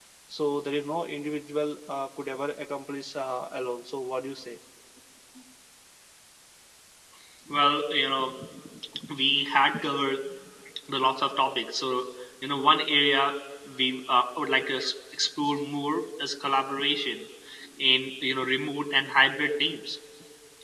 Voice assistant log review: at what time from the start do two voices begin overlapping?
none

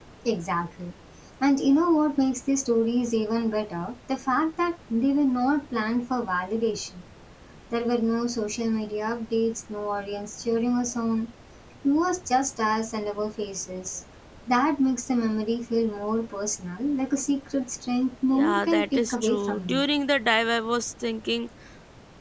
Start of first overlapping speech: 18.3 s

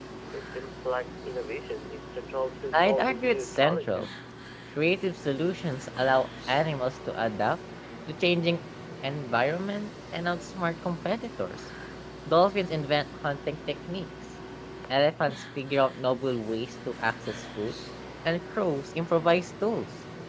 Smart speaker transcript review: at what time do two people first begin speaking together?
2.7 s

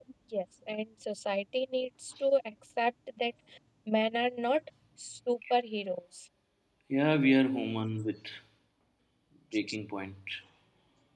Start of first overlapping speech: none

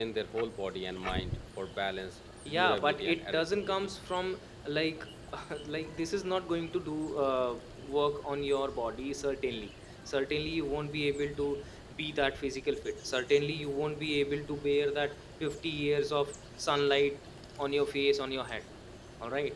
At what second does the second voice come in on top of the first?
2.5 s

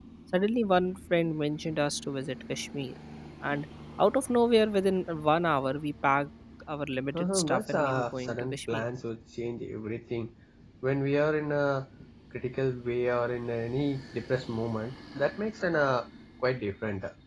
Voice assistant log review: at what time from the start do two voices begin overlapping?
7.1 s

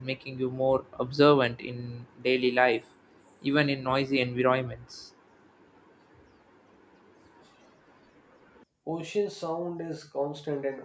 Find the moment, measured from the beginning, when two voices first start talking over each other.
none

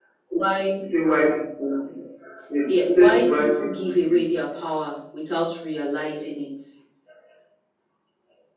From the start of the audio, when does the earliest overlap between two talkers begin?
2.7 s

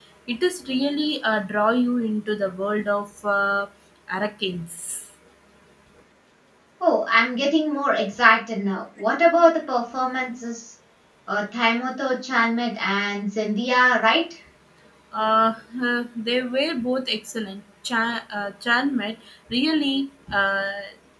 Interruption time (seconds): none

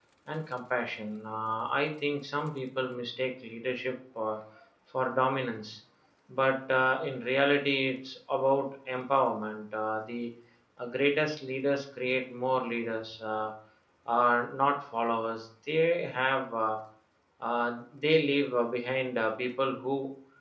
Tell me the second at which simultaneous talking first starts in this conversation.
none

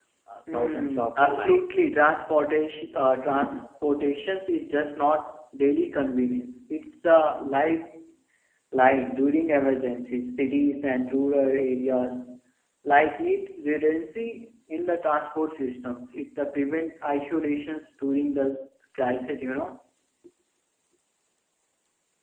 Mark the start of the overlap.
0.5 s

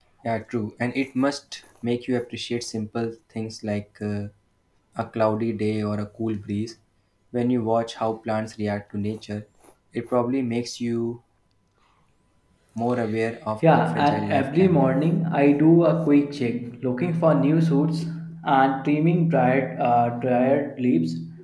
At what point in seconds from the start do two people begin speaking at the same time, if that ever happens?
13.6 s

